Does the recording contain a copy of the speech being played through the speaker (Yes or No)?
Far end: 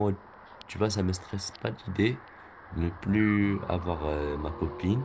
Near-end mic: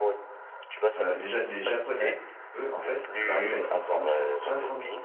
Yes